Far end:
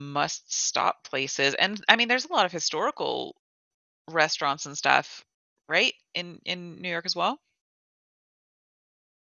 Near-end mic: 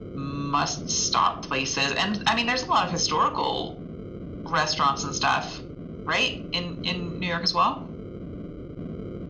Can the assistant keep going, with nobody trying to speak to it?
Yes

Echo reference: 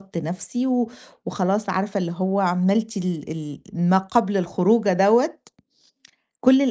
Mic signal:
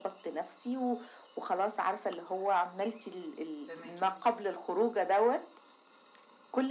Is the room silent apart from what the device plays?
No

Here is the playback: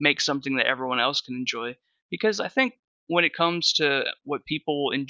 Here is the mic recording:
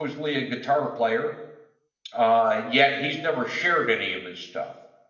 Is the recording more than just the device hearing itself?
Yes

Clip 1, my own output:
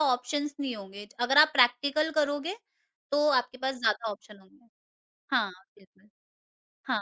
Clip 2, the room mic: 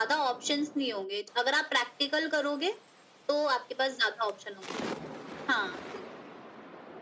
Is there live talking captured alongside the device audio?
No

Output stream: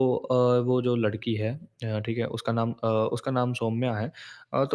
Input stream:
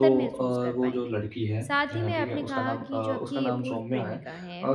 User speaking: Yes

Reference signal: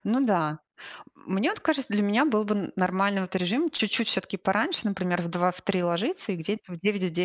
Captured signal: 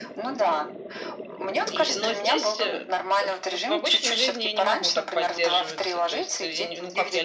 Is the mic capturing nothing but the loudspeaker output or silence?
No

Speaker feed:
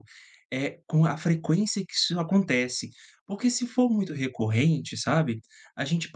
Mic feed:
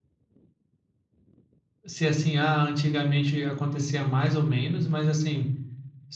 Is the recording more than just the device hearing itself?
Yes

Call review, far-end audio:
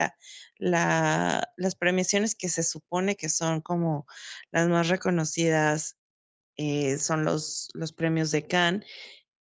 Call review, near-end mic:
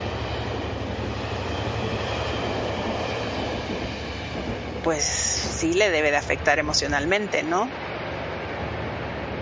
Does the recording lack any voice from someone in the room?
No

